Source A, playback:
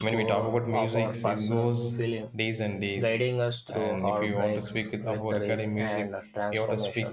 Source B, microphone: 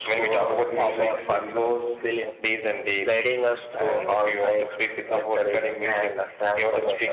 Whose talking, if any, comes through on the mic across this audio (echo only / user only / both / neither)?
echo only